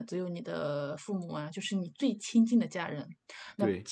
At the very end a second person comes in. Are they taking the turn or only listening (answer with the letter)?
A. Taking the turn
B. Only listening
B